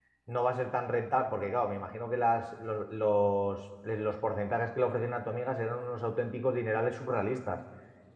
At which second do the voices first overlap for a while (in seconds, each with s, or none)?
none